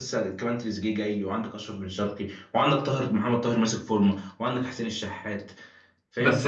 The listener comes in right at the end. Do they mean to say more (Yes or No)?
Yes